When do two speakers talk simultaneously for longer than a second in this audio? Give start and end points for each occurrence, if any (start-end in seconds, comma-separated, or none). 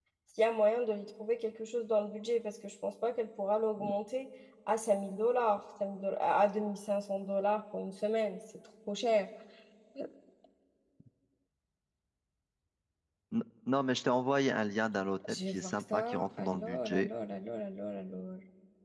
15.3-17.1